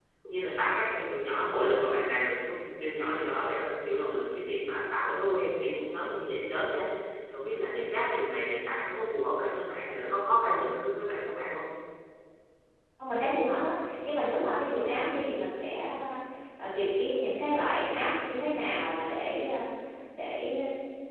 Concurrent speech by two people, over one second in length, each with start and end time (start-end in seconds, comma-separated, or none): none